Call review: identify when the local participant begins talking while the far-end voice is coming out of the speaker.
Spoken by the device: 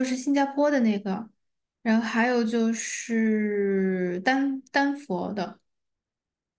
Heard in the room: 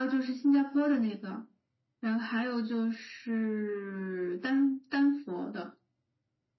none

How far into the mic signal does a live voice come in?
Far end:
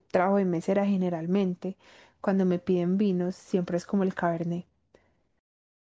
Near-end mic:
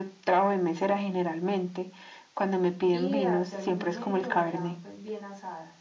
2.9 s

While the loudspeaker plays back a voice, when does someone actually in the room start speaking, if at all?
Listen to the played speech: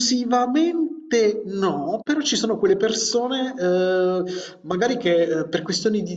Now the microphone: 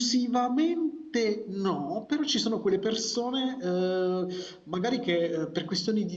none

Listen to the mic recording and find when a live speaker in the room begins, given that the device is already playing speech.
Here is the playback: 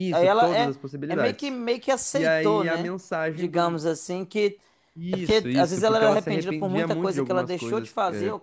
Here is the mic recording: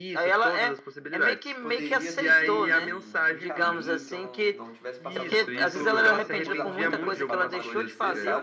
1.6 s

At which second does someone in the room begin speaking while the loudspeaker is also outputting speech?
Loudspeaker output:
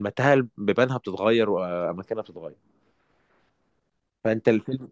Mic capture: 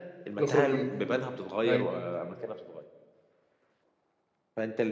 0.4 s

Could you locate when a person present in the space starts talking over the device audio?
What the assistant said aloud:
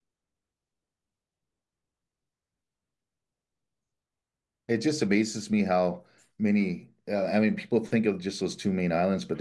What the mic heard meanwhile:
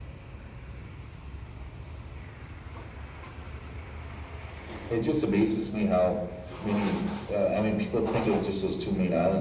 none

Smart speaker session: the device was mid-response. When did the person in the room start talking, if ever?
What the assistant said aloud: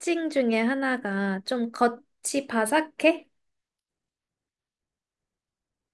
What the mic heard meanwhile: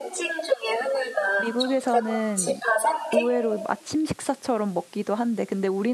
1.4 s

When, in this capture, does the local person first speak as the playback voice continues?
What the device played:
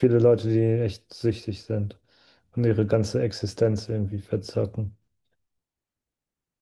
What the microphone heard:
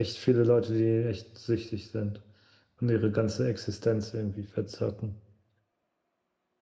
none

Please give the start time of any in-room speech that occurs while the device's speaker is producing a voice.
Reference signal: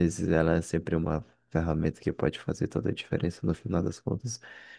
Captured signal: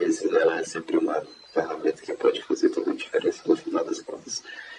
none

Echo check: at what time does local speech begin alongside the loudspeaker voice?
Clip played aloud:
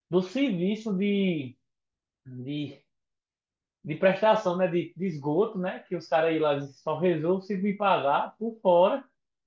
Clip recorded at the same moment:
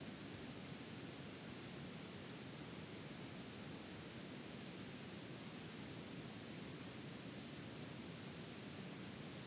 none

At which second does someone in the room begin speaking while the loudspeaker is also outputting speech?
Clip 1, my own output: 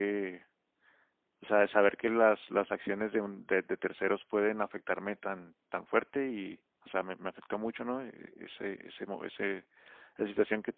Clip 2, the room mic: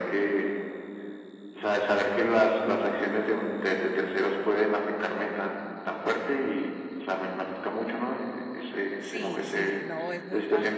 9.0 s

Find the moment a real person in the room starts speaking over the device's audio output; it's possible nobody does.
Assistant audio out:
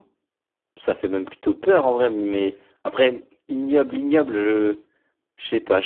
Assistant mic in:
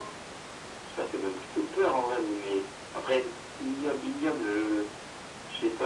none

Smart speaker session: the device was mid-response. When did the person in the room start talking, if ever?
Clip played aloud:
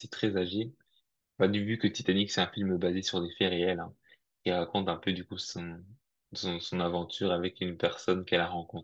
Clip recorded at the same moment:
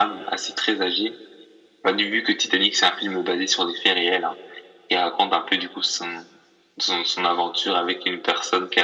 none

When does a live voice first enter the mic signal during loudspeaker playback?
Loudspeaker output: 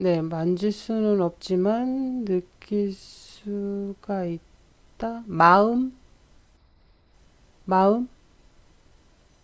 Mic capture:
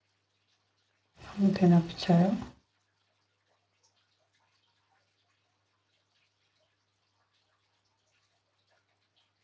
1.3 s

